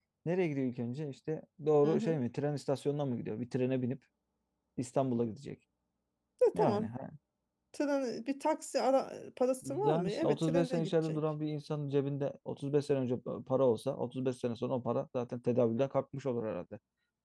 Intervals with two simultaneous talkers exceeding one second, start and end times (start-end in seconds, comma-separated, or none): 9.6-11.2